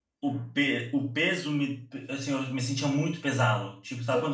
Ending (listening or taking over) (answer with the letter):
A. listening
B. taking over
A